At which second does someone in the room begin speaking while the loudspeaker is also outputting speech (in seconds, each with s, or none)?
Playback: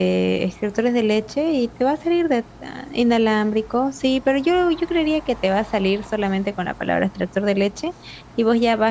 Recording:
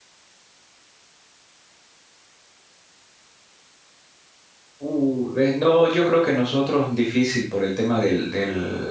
4.8 s